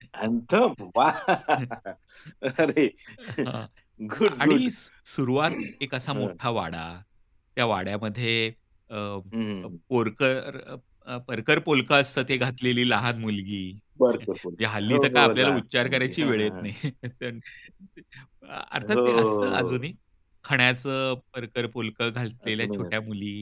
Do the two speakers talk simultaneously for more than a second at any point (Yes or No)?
Yes